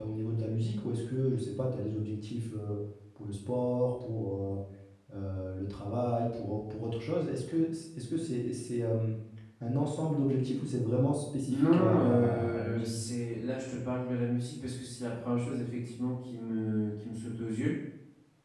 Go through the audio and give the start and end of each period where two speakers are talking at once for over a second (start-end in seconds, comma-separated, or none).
11.5-12.9